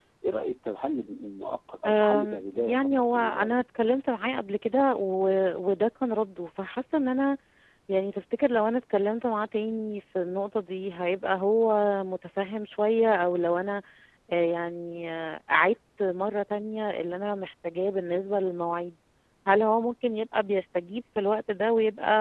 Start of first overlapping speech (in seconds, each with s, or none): 1.8 s